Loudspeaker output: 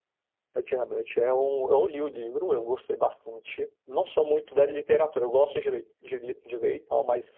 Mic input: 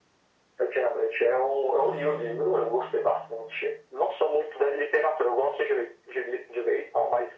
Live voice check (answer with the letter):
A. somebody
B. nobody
A